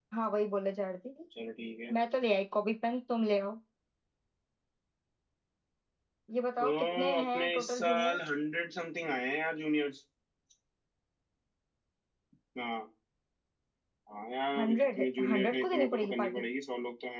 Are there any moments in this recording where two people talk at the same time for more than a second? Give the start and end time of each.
6.6-8.2, 14.6-16.4

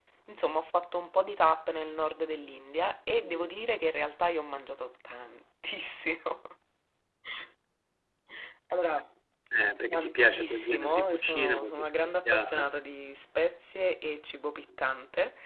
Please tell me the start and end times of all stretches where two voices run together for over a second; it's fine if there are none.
9.9-12.7

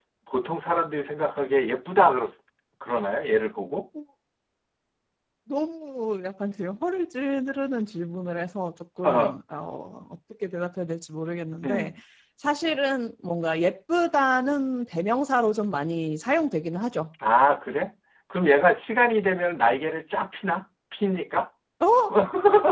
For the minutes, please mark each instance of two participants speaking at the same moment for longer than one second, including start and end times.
none

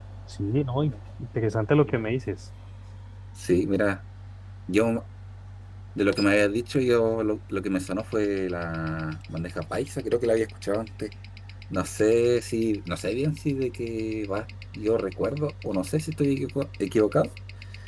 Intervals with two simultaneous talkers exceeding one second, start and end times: none

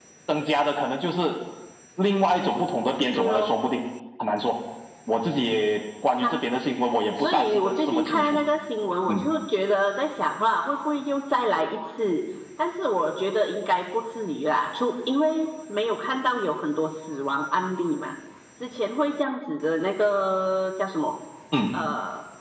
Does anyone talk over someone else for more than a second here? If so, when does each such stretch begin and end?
7.2-8.4

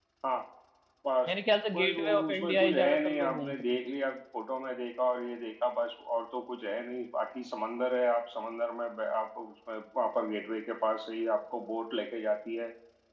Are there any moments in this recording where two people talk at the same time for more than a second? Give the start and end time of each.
1.7-3.6

